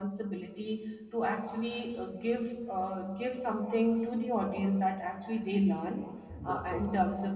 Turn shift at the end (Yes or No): No